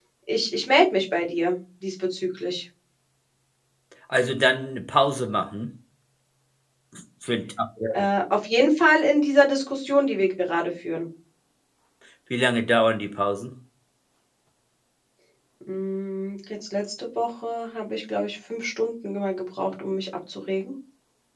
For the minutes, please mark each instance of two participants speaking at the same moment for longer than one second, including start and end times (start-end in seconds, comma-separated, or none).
none